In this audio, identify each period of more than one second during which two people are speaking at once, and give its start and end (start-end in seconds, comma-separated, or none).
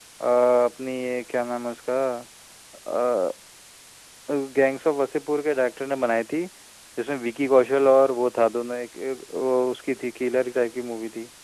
none